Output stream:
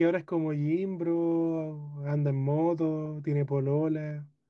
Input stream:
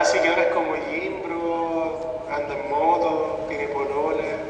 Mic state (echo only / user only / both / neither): echo only